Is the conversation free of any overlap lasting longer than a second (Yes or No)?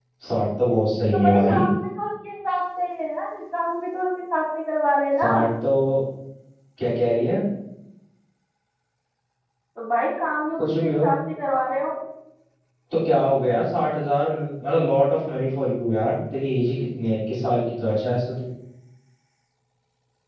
Yes